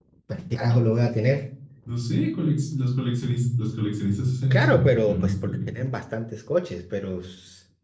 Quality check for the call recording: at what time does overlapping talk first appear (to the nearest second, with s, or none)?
5 s